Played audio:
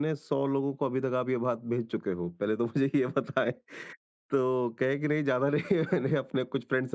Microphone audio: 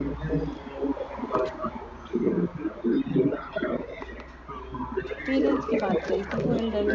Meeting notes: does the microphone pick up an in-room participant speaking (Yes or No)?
Yes